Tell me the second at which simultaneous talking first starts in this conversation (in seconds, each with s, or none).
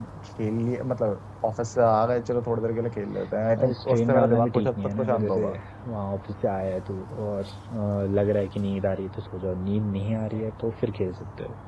3.6 s